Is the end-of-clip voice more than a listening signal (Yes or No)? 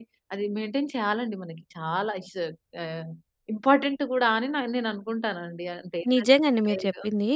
Yes